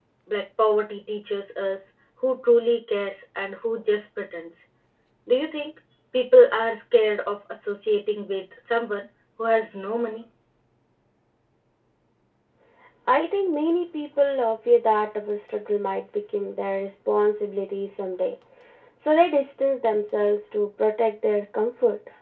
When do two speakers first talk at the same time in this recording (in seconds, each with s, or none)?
none